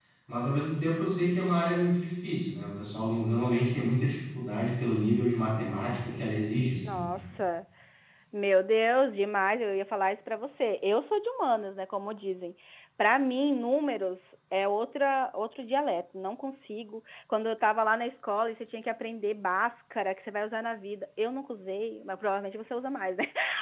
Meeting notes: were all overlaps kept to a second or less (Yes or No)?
Yes